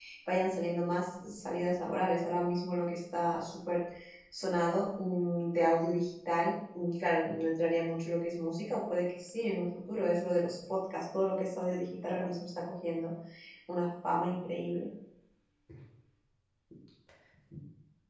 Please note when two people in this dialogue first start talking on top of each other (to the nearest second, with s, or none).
none